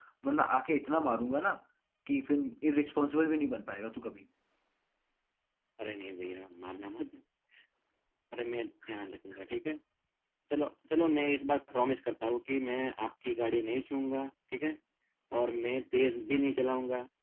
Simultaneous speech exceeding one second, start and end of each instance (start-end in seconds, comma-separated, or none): none